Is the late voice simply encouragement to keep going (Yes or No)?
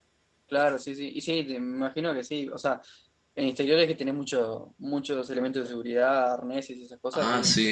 No